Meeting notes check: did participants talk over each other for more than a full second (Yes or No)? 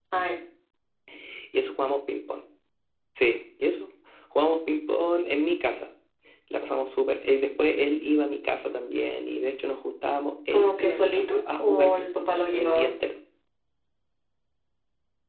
Yes